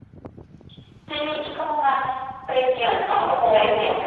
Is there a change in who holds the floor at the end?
No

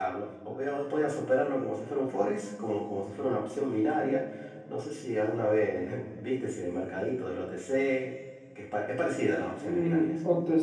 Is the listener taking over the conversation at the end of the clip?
Yes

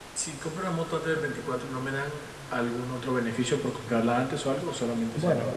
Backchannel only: No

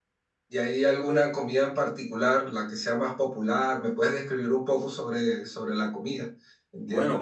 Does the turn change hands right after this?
Yes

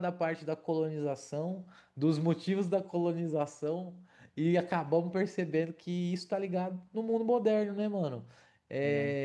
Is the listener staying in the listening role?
Yes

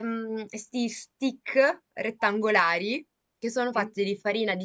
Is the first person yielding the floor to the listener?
No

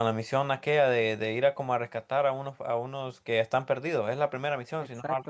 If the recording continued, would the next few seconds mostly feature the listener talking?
Yes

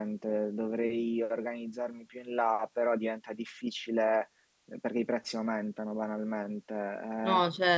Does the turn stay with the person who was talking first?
Yes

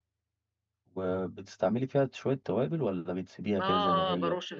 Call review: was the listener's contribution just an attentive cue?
No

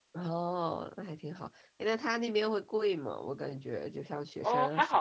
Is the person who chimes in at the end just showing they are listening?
No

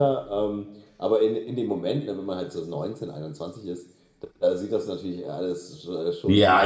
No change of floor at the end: No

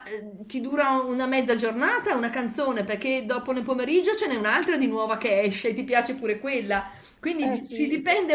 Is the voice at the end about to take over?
No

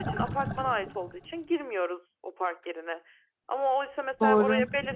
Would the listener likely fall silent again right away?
Yes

